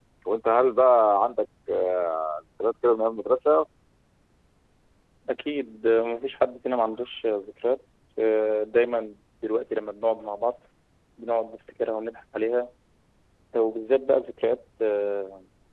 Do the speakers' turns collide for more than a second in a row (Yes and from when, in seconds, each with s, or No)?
No